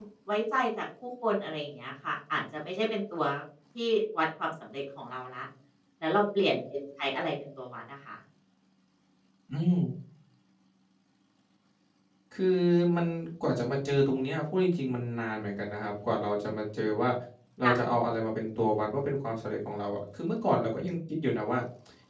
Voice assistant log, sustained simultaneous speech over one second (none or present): none